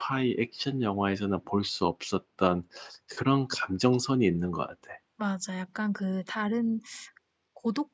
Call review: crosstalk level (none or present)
none